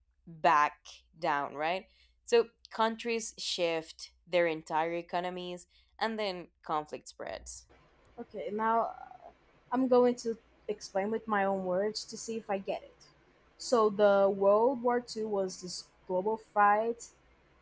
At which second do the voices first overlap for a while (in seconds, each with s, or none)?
none